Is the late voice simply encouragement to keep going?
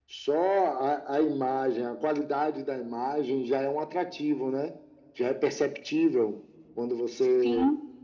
Yes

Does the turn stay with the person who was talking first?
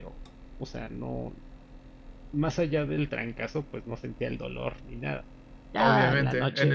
No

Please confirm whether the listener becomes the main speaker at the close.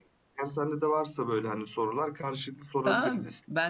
Yes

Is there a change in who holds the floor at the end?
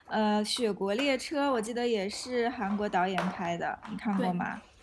Yes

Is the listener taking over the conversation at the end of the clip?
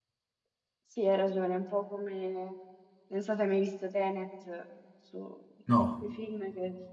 No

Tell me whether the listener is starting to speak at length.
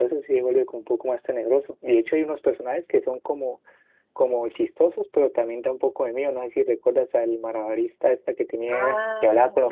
Yes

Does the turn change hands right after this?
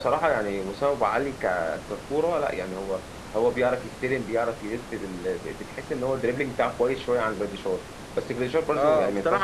Yes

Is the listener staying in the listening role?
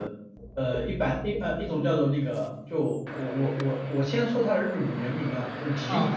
Yes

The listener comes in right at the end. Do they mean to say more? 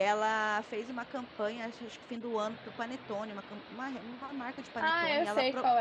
Yes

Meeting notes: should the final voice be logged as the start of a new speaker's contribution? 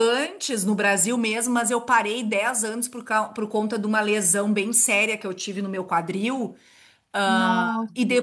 No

